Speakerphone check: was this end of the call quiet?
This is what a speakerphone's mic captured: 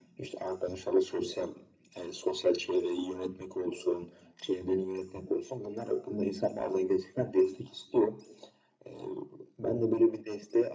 Yes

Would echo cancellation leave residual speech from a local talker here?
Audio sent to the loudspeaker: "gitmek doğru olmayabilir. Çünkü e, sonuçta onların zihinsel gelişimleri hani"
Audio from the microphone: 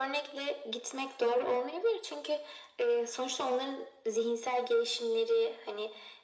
No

